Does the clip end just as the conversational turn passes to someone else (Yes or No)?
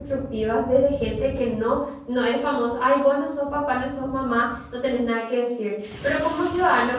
No